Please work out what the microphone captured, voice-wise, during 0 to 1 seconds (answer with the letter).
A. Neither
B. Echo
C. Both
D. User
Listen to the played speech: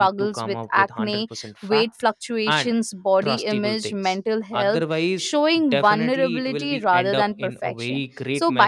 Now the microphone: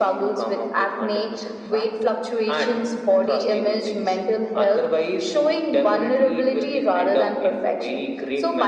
B